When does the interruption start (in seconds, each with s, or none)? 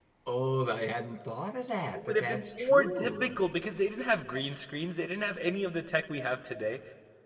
1.9 s